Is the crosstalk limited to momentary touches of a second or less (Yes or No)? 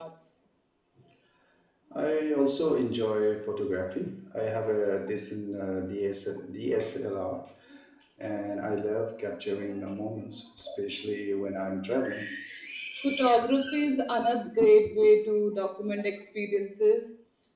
Yes